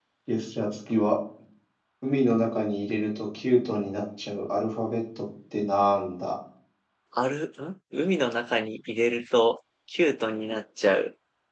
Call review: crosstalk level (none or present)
none